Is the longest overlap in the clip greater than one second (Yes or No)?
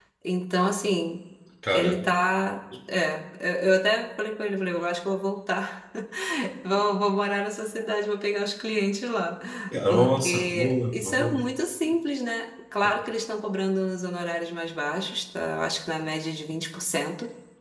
Yes